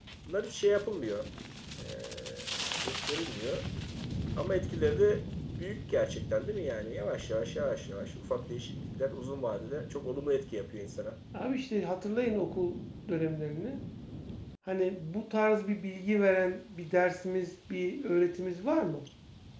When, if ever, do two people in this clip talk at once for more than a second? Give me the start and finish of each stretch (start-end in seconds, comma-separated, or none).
none